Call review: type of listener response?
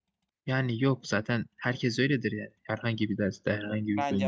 taking over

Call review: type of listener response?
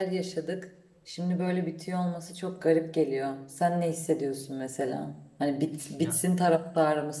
listening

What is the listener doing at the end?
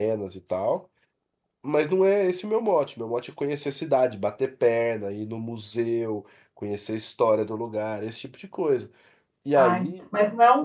taking over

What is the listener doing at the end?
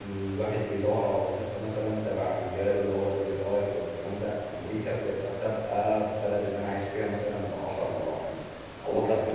taking over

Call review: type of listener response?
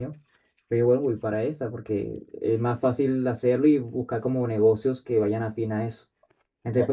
taking over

